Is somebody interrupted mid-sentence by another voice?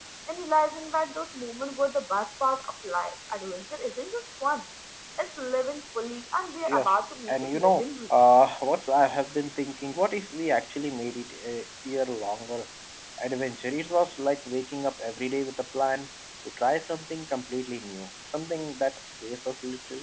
Yes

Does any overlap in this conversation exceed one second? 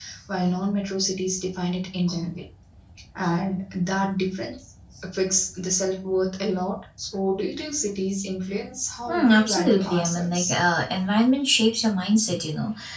Yes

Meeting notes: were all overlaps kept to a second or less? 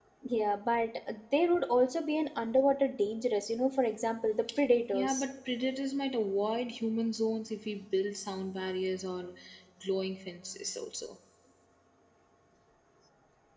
Yes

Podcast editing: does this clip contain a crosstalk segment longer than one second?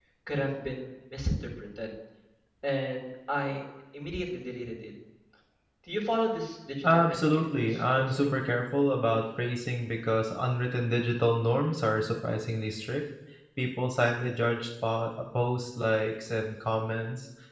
Yes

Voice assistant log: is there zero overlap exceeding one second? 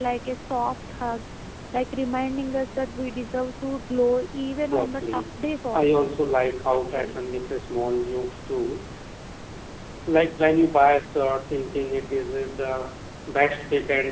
No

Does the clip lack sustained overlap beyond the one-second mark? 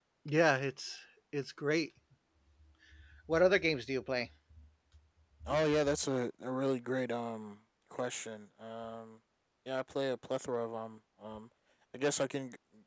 Yes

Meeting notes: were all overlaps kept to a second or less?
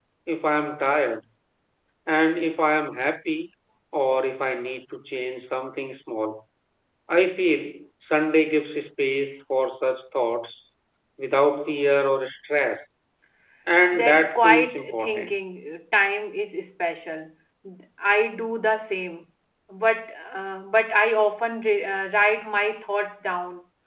No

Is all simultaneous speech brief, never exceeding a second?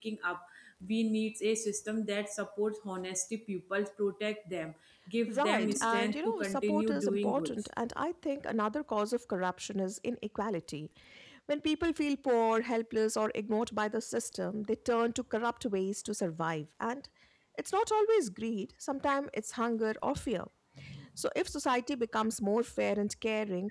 No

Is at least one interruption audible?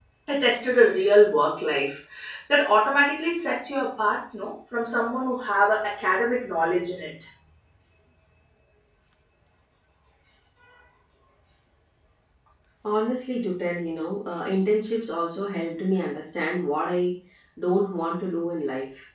No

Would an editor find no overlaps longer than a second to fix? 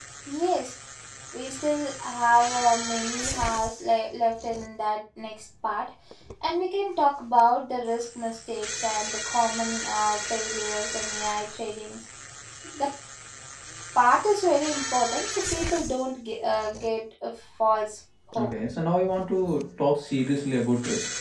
Yes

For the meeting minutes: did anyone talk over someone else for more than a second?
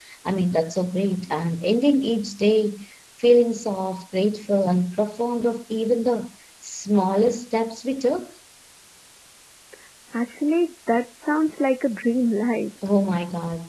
No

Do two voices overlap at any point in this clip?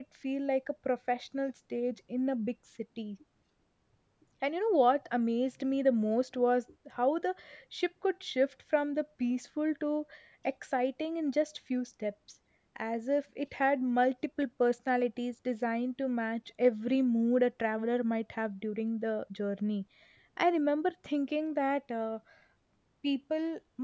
No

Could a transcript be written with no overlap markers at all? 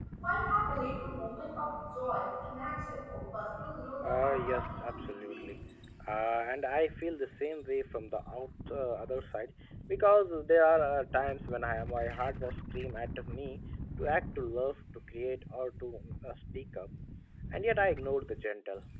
No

